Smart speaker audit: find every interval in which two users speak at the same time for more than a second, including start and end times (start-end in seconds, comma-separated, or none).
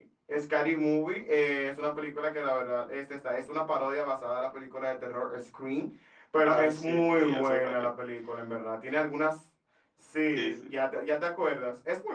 6.4-7.9